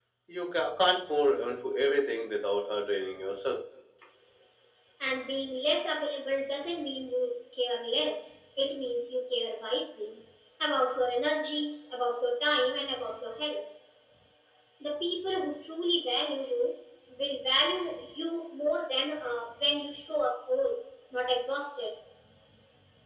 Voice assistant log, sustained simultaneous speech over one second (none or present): none